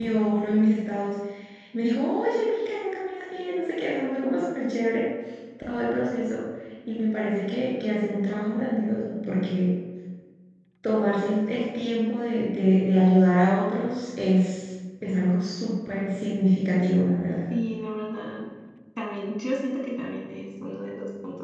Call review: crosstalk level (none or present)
none